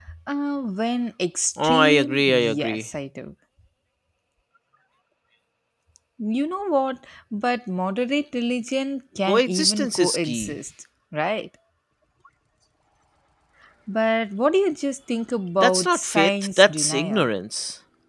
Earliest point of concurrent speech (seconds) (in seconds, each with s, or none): 1.6 s